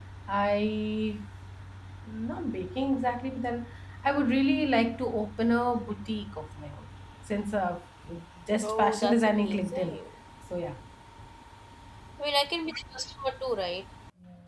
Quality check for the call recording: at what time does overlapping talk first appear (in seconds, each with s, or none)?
8.6 s